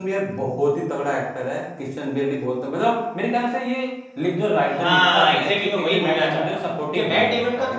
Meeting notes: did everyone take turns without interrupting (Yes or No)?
No